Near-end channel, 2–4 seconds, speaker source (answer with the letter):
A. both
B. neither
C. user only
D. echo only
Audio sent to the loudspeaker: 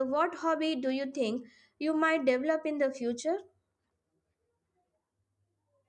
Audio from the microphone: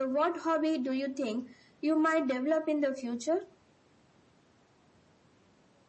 D